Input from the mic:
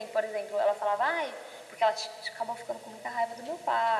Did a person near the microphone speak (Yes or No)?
No